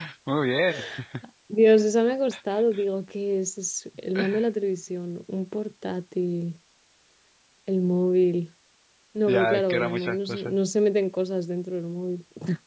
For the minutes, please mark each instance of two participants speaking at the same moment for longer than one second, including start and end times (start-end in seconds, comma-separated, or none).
9.3-10.5